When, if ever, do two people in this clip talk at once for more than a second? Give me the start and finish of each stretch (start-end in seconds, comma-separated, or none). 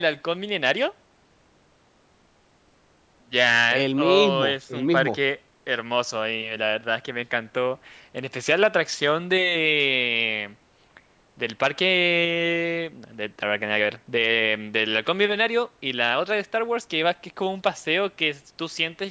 3.7-5.2